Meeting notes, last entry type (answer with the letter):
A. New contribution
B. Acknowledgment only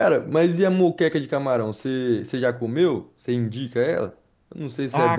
A